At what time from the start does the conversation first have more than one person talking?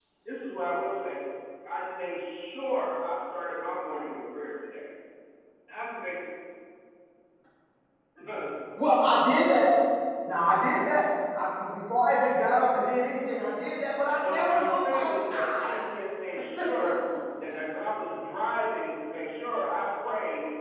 14.2 s

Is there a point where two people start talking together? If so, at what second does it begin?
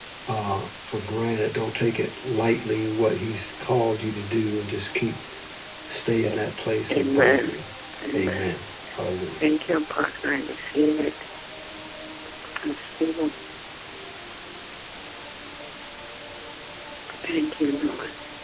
6.2 s

